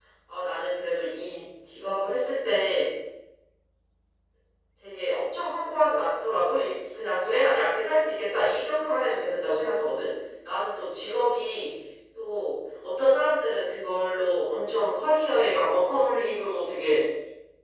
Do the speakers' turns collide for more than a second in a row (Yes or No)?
No